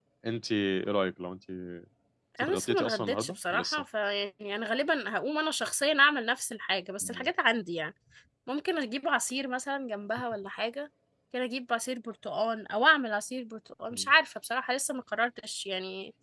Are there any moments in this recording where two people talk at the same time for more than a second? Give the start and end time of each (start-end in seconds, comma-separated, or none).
2.4-3.8